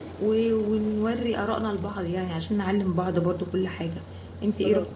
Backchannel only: Yes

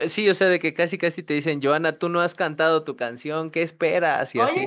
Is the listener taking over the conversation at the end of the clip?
Yes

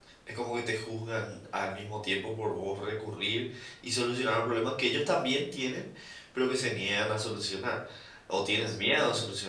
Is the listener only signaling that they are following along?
Yes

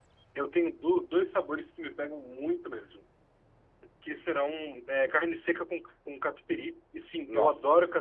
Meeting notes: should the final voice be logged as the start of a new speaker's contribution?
No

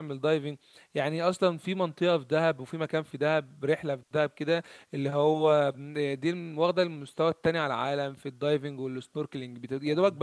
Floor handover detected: No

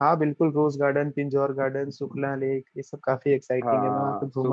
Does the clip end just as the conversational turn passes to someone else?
Yes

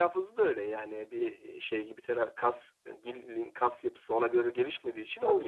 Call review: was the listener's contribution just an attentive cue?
No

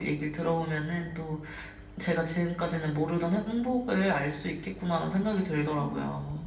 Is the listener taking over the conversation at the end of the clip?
Yes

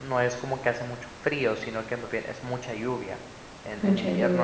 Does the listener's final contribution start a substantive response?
No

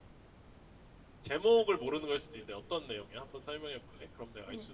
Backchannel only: No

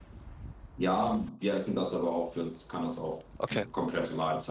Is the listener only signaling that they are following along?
Yes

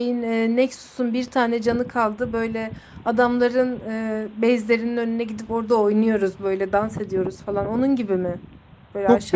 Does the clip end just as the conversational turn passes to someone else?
Yes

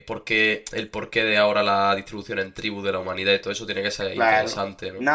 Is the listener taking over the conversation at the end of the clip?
Yes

